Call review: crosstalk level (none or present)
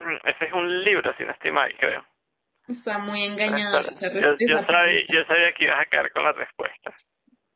present